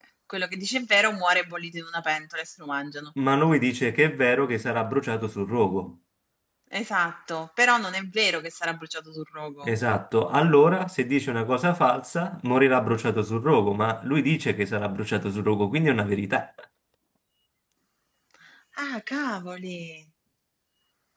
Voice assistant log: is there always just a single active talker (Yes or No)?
Yes